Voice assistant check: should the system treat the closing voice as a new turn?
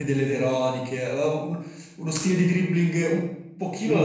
Yes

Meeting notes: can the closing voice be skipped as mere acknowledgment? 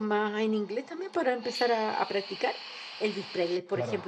Yes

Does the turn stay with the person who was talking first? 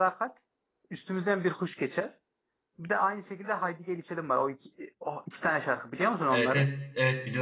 No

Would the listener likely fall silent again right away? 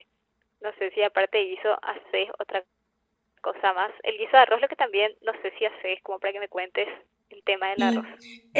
No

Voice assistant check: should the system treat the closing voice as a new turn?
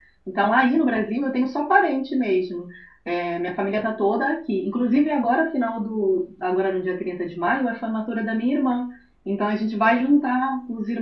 No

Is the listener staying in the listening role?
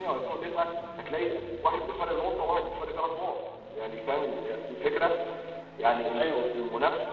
Yes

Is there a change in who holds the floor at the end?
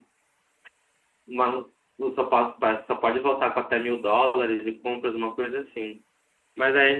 No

